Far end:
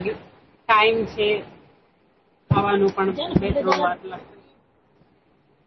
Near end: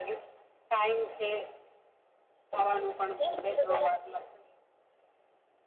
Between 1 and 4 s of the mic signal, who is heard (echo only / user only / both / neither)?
echo only